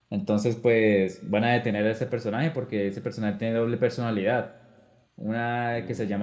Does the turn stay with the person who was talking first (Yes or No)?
Yes